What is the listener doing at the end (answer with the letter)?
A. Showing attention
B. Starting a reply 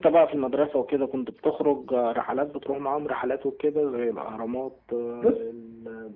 A